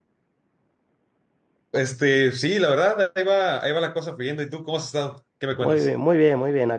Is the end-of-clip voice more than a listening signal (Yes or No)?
Yes